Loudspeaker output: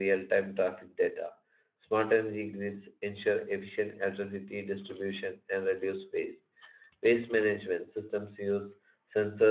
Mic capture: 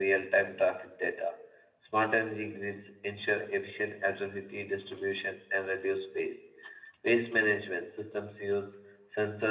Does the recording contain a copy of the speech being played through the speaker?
Yes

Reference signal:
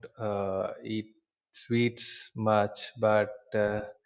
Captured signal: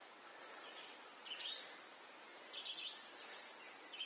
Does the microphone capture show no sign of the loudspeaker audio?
Yes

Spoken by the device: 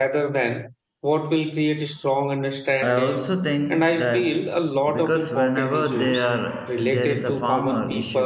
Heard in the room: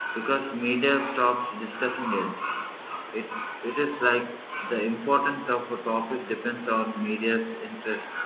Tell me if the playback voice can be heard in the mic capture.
No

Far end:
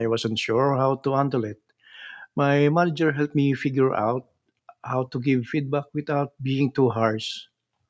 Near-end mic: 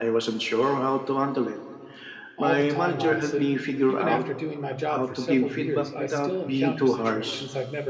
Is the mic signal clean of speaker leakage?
No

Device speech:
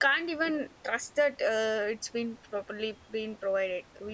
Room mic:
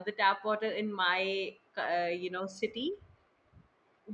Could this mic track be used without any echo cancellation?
Yes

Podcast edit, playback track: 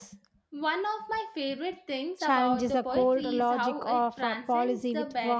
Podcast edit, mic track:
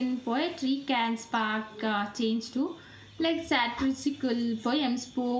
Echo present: No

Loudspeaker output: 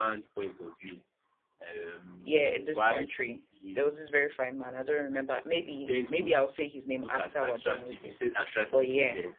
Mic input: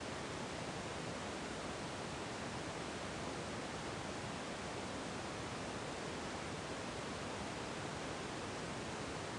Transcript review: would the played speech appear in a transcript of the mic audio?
No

